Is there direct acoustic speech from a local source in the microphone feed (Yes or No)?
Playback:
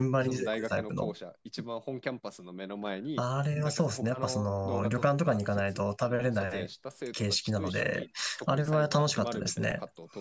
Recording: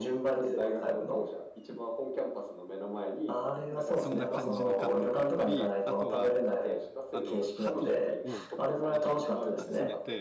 Yes